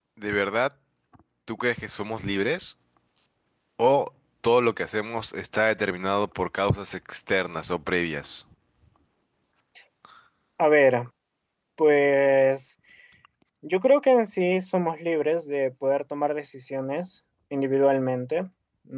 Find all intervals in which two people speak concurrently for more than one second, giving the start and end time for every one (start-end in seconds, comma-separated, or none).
none